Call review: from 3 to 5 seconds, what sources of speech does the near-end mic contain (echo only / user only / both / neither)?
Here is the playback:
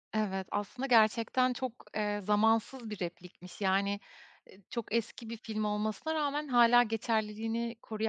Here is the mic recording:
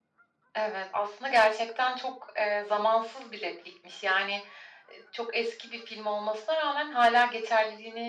echo only